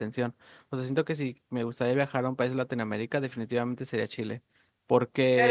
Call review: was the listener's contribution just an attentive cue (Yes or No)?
No